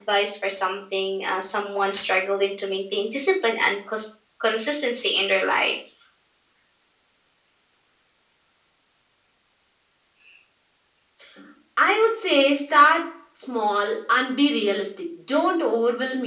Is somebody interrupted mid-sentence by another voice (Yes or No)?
No